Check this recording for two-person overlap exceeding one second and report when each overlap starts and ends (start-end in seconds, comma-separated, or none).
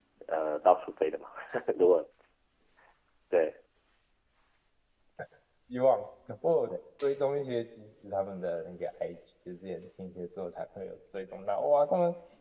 none